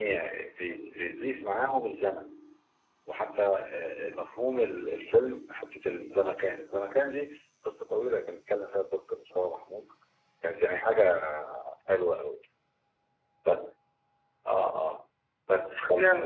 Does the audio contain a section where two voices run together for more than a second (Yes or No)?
No